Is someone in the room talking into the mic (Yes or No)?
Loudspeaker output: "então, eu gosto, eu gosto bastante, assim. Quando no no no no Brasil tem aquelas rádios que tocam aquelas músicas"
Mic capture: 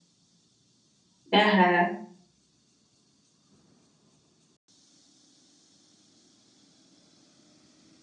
Yes